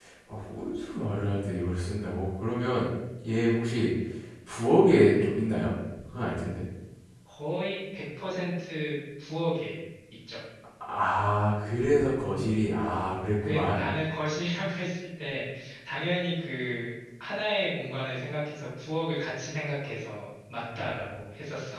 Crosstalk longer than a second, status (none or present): none